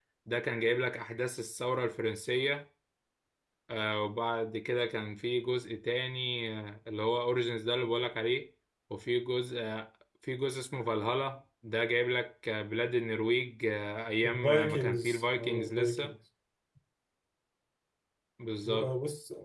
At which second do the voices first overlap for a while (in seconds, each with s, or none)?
14.2 s